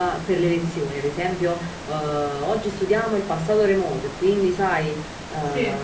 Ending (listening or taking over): listening